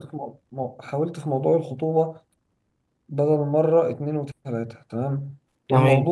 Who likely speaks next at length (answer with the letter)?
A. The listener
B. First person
B